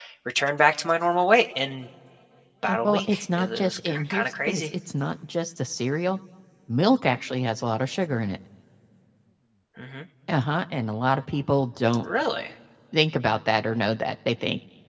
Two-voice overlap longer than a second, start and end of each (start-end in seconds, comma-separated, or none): 2.6-4.7